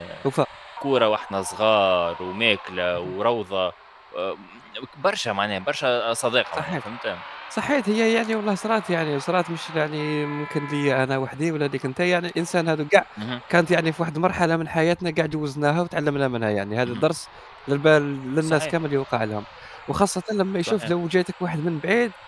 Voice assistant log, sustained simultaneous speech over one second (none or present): none